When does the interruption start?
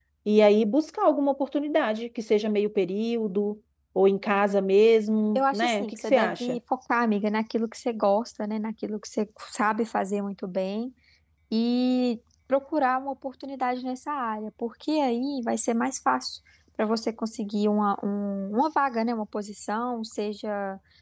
5.3 s

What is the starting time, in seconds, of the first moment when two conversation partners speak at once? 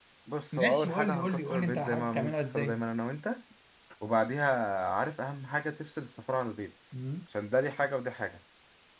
0.6 s

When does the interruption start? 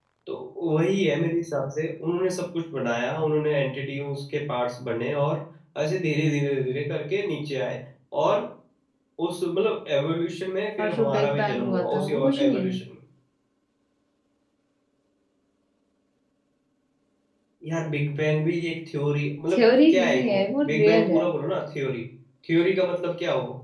10.8 s

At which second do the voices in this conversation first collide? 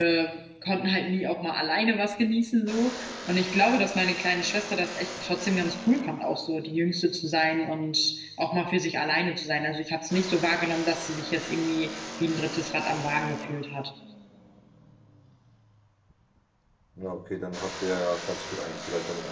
none

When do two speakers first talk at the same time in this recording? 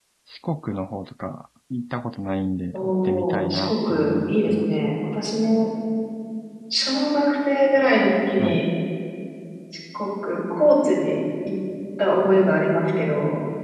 2.7 s

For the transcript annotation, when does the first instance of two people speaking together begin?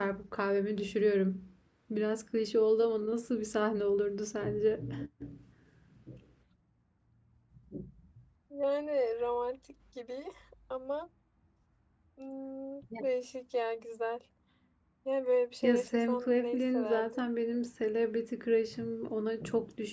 15.6 s

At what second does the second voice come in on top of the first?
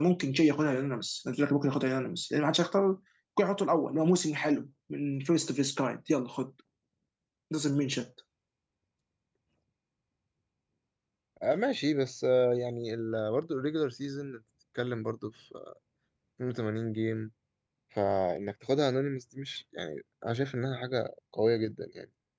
none

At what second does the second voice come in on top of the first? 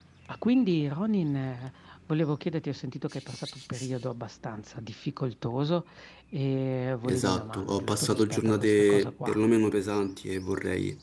7.0 s

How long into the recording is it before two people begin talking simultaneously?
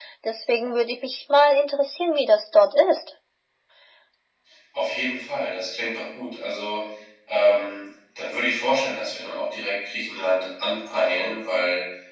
none

